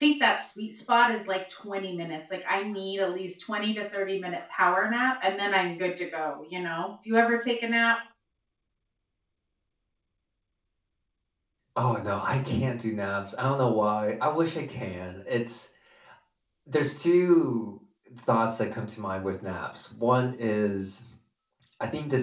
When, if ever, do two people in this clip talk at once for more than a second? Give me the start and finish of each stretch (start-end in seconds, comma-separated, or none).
none